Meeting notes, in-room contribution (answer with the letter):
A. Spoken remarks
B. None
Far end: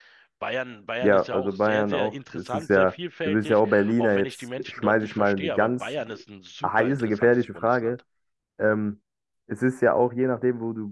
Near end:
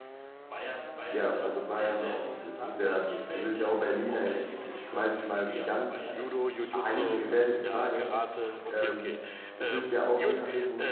A